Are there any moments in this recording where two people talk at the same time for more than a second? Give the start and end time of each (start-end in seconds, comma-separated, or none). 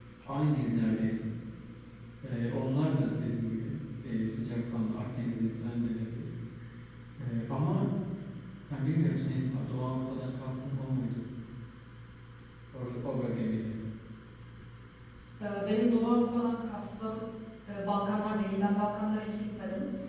none